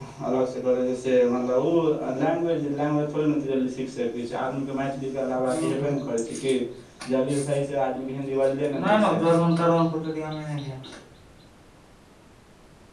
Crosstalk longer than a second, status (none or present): none